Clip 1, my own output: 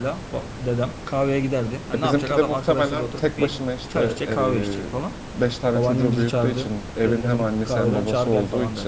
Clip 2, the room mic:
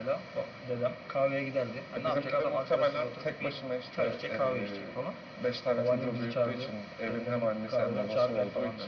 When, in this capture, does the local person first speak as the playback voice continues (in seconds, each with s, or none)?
none